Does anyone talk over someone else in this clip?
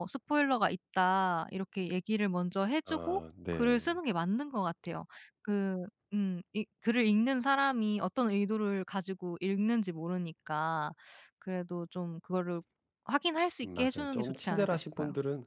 Yes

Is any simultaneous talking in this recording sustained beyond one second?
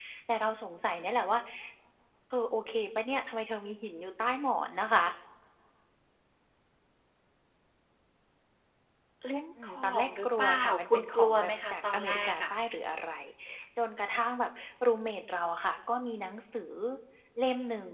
Yes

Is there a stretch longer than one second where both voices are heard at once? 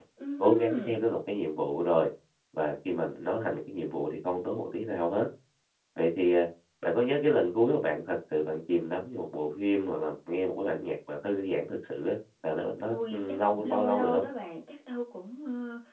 Yes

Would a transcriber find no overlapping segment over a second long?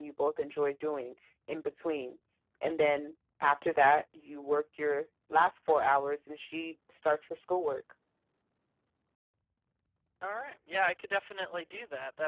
Yes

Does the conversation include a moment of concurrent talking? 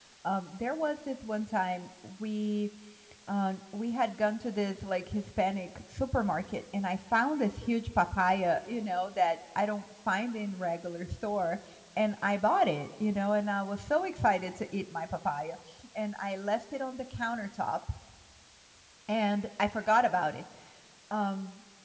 No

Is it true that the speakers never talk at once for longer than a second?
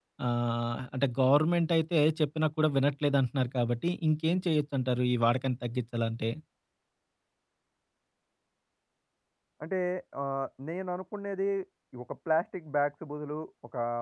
Yes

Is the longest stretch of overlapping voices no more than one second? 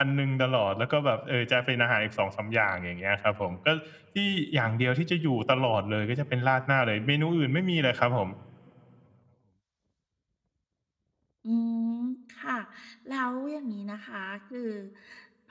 Yes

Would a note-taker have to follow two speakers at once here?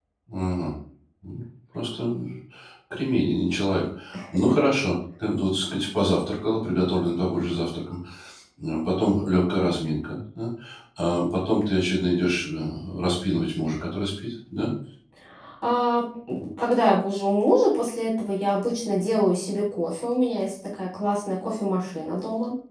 No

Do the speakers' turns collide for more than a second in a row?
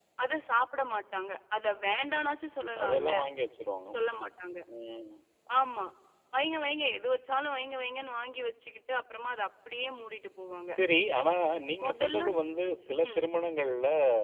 No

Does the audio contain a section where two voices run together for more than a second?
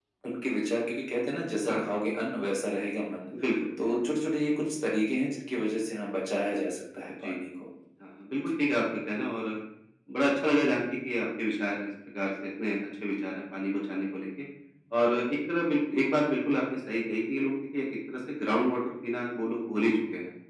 No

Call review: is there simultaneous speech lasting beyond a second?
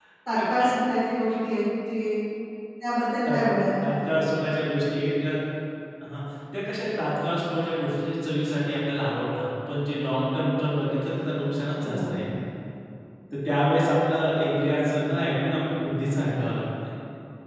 No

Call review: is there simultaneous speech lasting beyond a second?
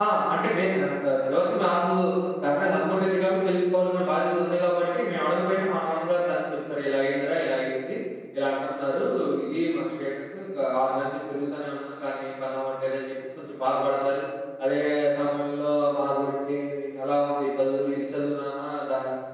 No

